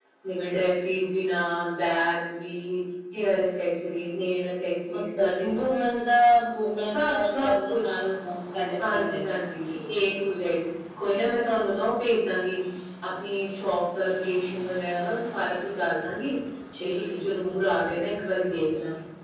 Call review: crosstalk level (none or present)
present